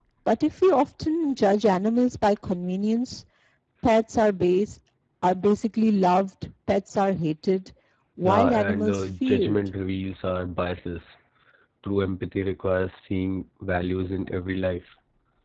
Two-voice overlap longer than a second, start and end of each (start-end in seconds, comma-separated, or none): 8.2-9.6